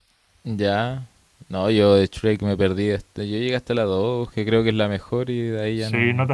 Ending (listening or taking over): taking over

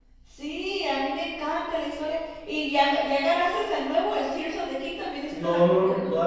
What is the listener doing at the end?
taking over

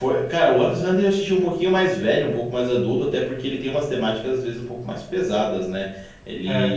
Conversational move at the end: listening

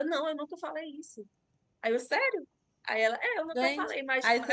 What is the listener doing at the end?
taking over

